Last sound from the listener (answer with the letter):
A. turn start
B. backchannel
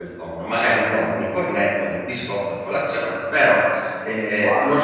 B